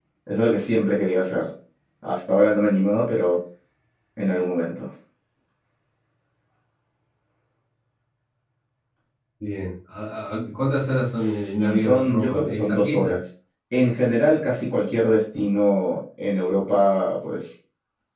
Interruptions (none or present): present